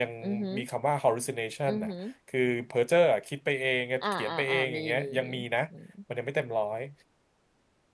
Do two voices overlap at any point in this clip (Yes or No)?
Yes